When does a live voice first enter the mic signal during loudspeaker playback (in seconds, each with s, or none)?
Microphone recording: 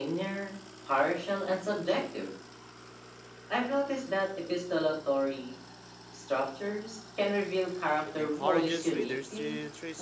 8.0 s